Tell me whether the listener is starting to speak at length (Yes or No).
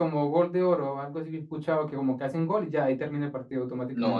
Yes